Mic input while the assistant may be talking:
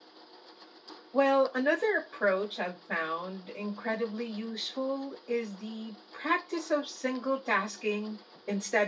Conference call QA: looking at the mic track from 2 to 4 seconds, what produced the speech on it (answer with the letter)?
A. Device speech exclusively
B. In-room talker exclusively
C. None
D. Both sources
B